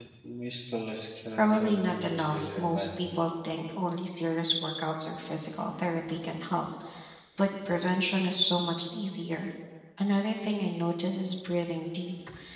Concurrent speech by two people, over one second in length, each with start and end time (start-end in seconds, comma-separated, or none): 1.3-2.9